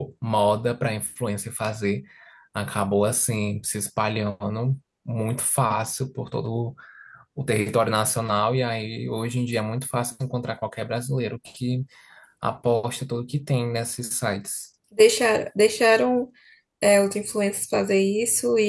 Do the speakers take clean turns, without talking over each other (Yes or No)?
Yes